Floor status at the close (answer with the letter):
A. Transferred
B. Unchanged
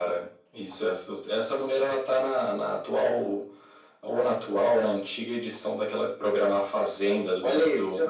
A